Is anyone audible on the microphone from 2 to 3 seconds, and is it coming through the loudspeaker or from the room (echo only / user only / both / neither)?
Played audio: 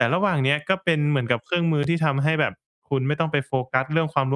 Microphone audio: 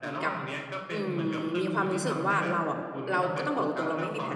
both